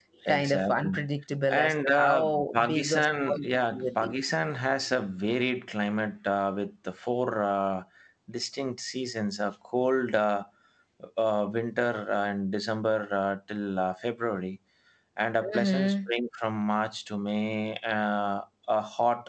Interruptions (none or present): present